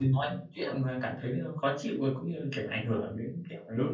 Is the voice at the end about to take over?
Yes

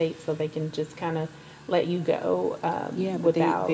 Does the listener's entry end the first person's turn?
Yes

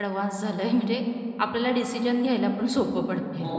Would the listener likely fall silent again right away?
No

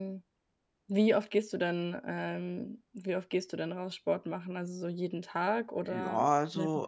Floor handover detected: Yes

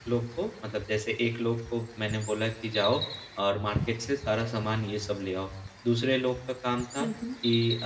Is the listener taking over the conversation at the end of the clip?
No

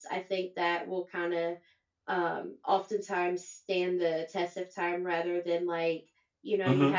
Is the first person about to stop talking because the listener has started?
No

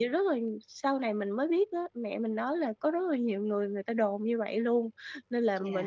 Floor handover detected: No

